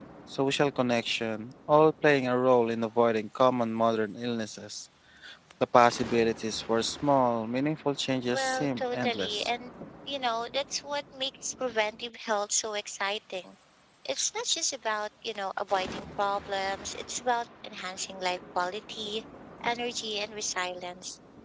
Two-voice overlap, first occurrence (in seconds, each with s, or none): 8.3 s